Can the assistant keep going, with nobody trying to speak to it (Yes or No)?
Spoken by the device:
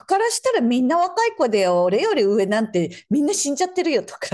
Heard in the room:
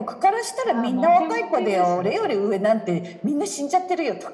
No